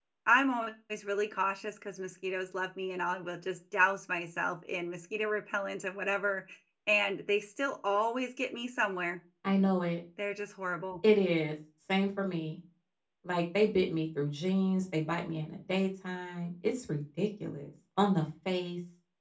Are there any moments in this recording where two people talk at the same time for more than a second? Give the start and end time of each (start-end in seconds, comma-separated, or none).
none